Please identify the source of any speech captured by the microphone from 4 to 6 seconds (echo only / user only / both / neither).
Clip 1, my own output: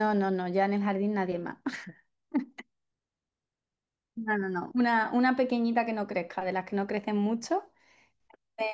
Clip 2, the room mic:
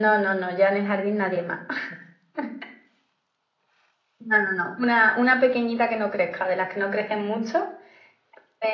echo only